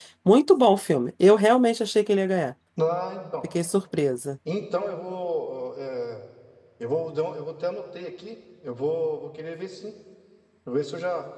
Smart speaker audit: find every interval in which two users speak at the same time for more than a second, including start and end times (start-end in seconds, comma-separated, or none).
none